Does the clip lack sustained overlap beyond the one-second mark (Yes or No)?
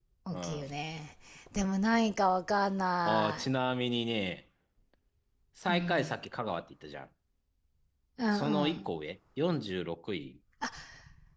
Yes